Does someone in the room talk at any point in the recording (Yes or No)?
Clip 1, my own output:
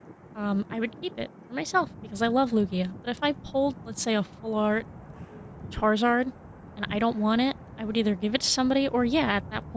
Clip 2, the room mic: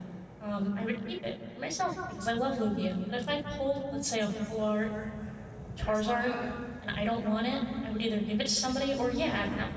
Yes